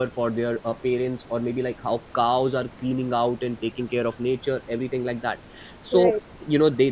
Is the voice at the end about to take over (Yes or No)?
No